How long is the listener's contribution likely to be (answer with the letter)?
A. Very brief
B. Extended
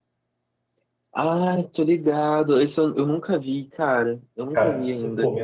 B